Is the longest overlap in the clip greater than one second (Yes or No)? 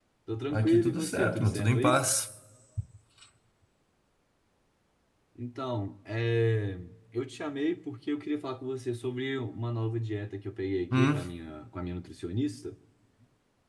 Yes